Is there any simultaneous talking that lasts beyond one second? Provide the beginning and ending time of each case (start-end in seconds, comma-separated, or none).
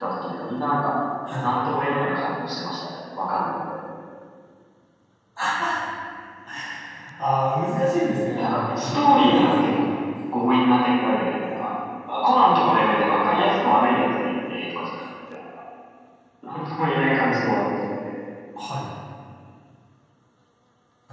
8.4-9.9